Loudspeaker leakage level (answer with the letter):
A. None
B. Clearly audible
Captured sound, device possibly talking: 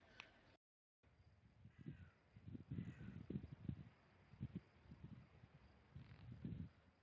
A